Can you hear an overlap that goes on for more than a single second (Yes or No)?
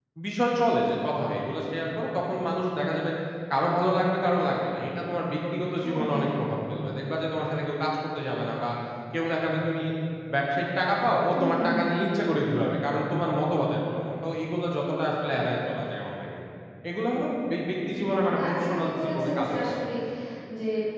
Yes